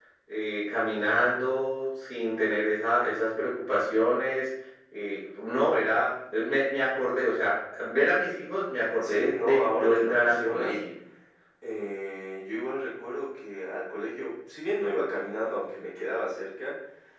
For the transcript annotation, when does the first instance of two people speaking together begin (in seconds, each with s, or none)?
9.0 s